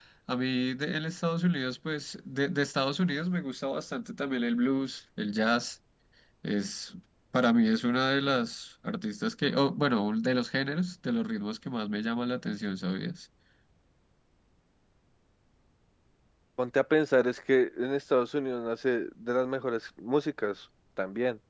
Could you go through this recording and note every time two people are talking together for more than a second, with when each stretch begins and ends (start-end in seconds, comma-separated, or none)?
none